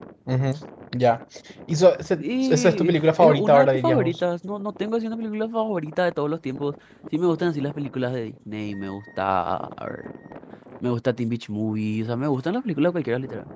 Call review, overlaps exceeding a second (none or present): present